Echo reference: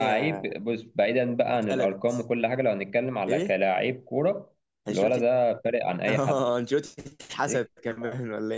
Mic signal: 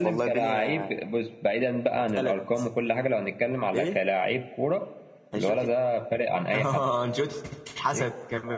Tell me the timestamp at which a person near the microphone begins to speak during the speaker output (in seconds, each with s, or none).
none